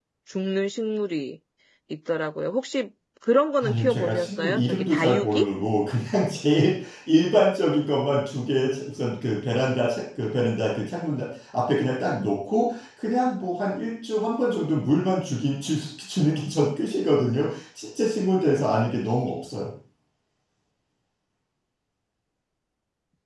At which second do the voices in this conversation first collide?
3.6 s

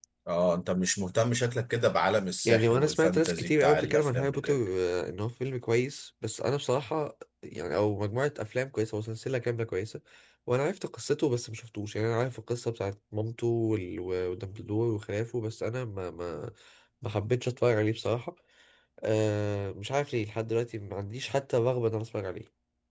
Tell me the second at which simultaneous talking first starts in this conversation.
2.5 s

